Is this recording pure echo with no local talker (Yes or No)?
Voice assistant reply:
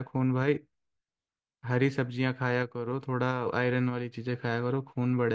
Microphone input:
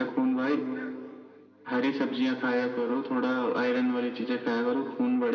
Yes